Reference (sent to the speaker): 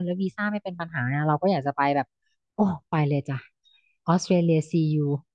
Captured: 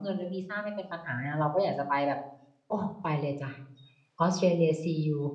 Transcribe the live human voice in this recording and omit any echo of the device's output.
none

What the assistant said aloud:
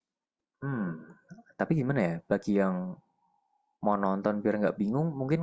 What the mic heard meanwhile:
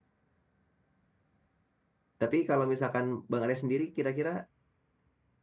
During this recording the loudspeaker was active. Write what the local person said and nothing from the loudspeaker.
Tapi kalau misalkan Bang Arya sendiri kira-kira

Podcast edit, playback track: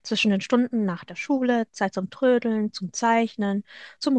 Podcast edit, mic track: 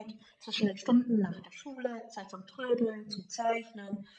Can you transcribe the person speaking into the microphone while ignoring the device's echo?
none

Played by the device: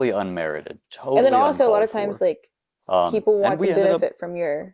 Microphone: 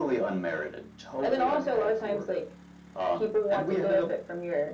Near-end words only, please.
none

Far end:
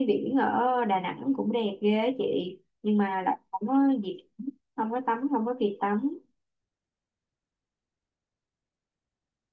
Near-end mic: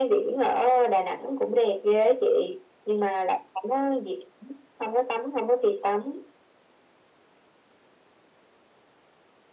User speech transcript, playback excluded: none

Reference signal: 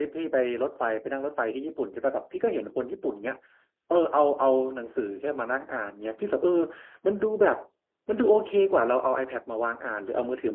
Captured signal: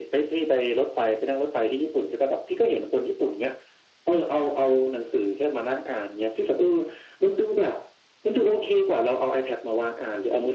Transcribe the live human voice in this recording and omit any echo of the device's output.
none

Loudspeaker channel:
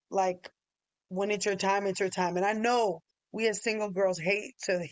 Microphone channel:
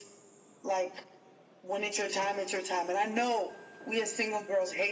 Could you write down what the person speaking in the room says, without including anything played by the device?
none

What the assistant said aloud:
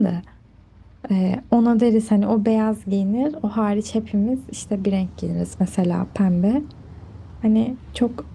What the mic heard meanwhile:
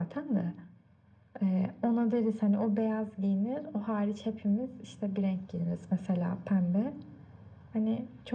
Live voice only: none

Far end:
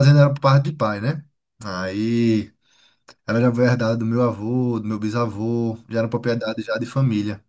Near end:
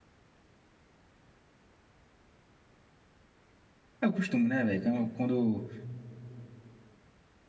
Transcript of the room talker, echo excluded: É o costume, né, velho? Quando quando

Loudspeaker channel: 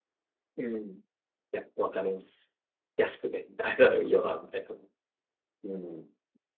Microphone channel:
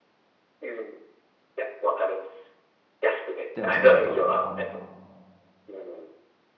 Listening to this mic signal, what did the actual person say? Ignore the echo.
でもそのなんか、あの、

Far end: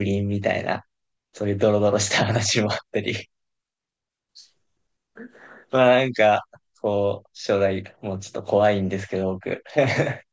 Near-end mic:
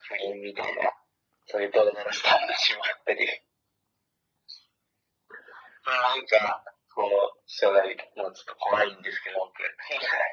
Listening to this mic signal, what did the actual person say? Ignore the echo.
none

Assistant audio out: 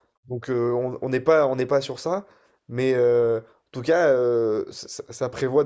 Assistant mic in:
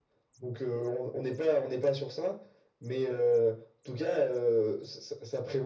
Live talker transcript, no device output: none

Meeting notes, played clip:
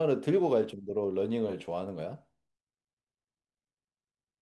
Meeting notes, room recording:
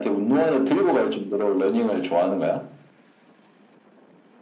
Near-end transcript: none

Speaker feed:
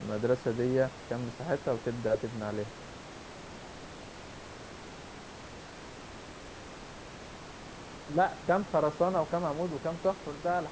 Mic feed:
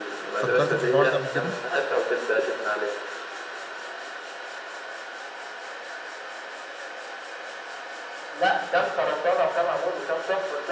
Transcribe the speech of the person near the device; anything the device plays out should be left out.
فكرت في الحوار ده قبل كده

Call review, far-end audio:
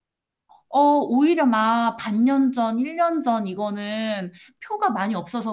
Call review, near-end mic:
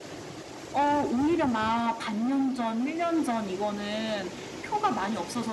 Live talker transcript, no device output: none

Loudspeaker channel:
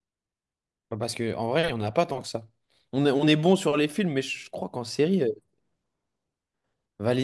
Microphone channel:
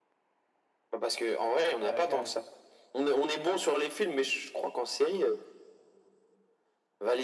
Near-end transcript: elle la cage.

